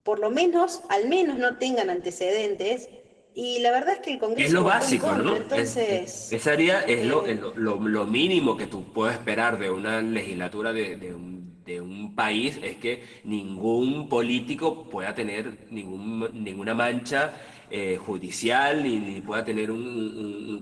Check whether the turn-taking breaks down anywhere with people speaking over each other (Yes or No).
Yes